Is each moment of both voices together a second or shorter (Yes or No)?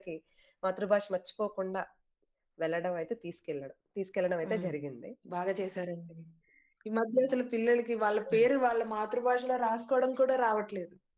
Yes